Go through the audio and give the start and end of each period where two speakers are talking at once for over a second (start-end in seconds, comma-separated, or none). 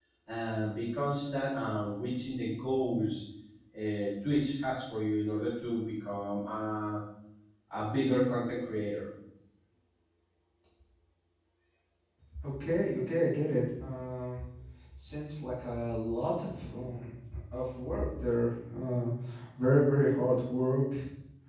none